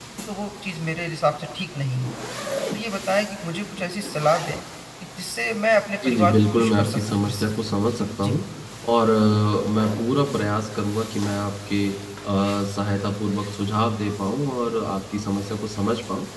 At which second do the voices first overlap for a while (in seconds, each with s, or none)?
6.0 s